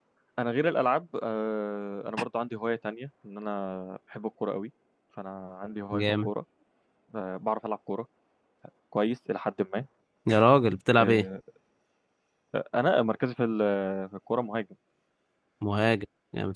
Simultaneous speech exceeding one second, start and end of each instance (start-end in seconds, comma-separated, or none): none